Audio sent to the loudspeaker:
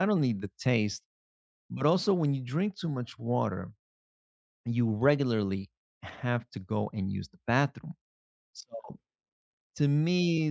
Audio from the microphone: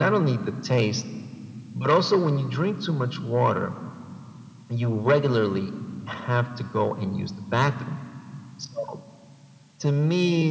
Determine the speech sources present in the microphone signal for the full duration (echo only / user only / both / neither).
echo only